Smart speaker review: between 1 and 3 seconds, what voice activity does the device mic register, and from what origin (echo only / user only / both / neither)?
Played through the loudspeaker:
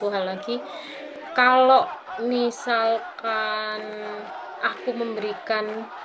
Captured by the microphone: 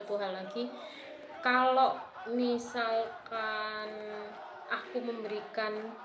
echo only